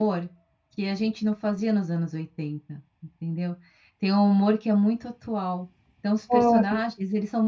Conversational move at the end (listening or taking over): listening